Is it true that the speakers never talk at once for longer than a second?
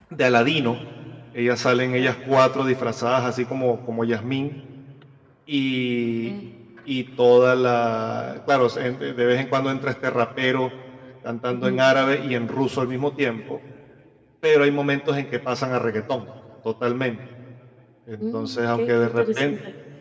No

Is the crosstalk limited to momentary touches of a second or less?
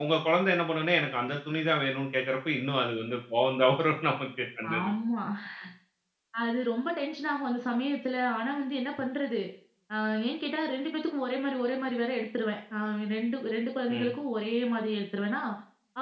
Yes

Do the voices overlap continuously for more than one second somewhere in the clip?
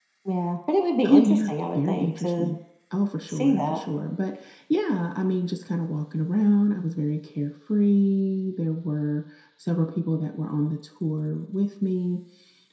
Yes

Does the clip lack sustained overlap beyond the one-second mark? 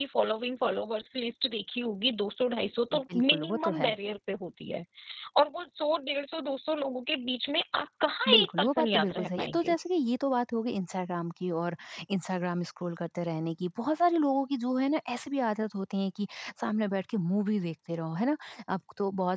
No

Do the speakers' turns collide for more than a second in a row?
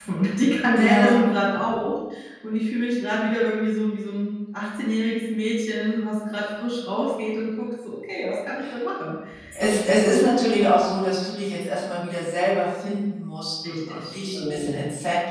Yes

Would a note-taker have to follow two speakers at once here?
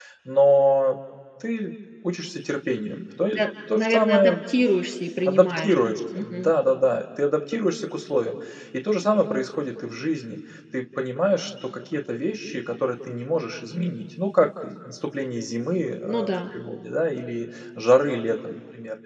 Yes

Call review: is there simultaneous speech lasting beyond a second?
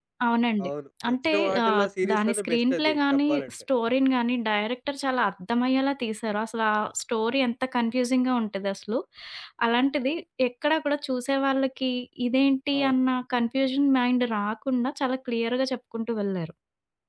Yes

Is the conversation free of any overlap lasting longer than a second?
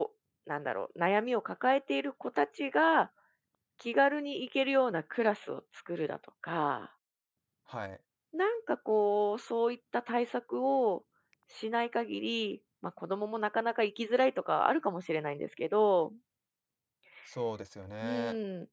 Yes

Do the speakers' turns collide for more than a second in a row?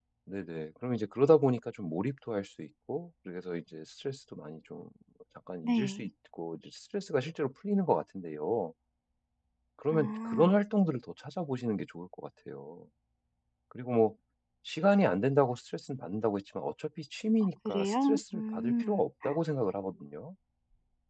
Yes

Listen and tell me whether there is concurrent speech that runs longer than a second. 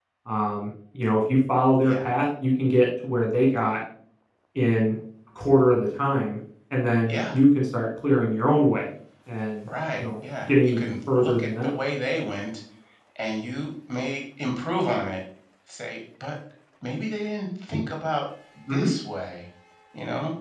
Yes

